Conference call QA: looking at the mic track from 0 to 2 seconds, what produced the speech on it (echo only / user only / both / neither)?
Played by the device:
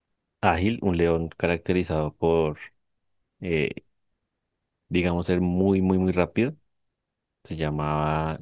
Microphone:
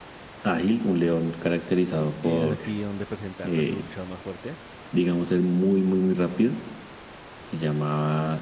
echo only